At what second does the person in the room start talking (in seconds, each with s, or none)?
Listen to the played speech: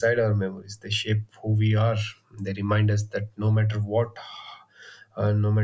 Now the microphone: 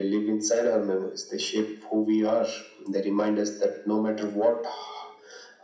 none